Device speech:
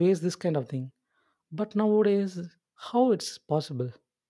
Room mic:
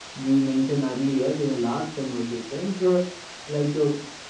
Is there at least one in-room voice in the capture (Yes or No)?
Yes